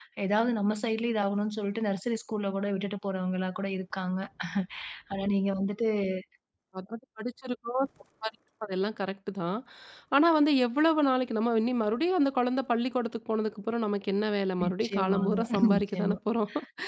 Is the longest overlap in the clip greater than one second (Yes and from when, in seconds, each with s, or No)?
Yes, from 14.6 s